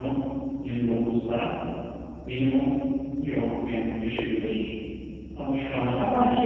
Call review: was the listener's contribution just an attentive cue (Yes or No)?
No